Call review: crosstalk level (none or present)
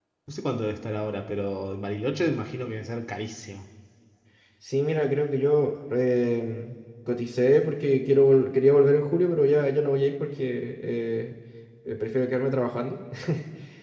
none